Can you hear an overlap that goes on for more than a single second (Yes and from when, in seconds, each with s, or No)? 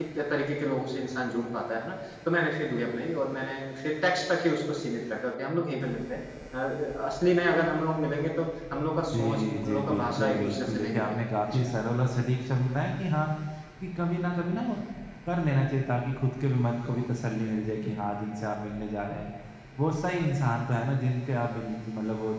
Yes, from 9.1 s